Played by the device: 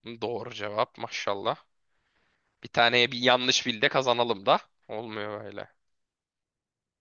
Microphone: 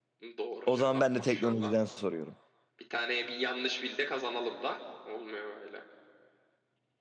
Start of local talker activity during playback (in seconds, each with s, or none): 0.6 s